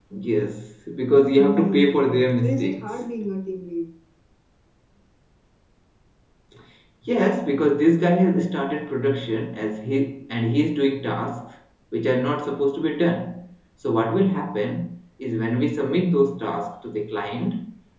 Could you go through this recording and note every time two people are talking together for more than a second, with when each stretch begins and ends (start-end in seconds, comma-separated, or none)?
1.4-2.9